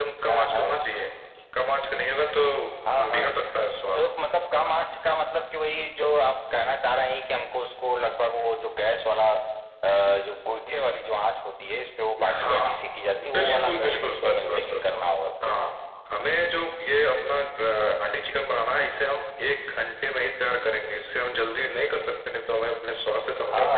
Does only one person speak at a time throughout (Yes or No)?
No